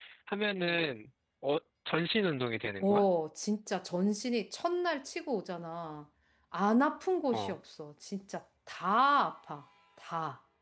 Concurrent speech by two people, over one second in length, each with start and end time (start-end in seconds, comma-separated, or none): none